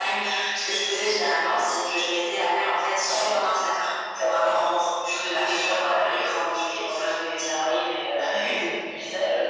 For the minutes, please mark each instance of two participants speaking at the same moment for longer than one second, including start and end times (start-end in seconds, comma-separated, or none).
5.0-7.4